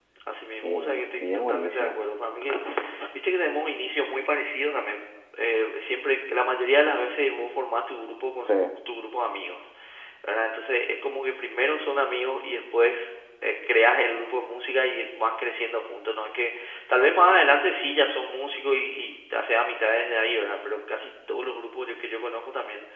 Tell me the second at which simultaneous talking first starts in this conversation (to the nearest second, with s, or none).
1 s